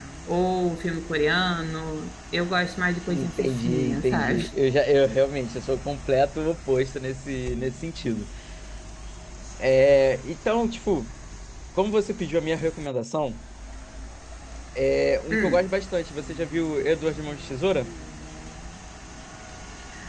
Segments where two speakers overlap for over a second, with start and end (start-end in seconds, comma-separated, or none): 3.1-4.4